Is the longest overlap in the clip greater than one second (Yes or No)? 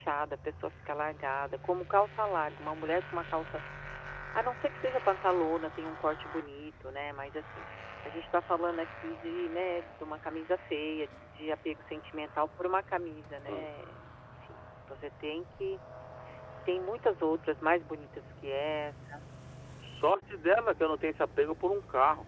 No